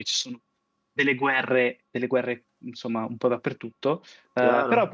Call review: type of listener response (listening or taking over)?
listening